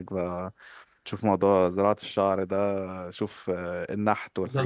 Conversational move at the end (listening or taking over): taking over